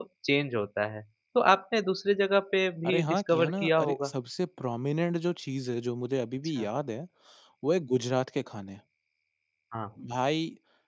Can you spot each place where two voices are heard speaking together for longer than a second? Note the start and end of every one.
2.8-4.1

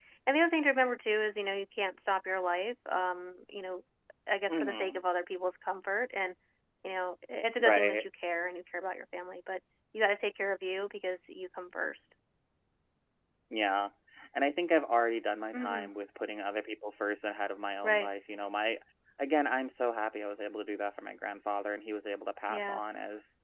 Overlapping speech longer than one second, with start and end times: none

